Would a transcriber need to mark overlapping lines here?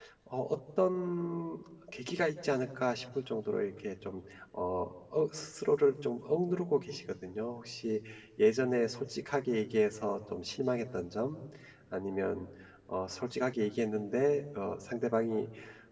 No

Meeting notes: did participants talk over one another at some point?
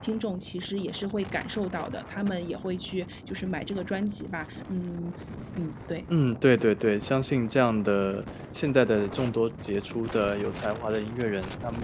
No

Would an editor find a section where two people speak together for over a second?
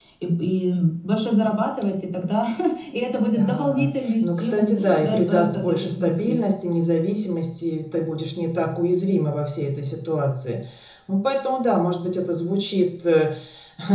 Yes, from 3.3 s

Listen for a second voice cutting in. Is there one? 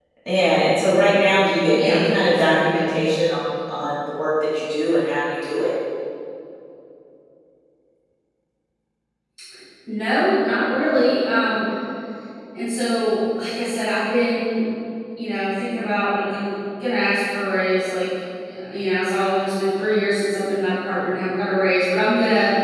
Yes, from 1.7 s

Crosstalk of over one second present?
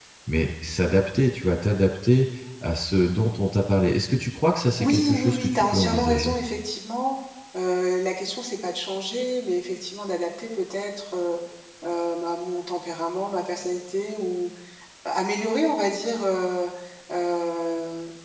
Yes, from 4.8 s

